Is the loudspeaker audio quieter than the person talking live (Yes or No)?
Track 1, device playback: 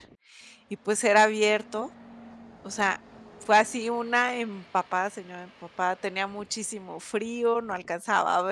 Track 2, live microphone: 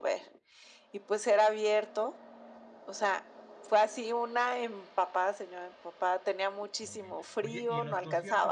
No